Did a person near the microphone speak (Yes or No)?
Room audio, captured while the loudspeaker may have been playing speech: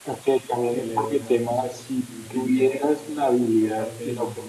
Yes